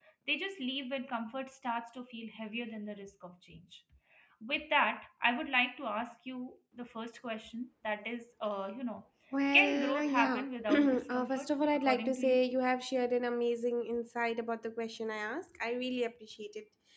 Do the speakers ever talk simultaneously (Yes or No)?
Yes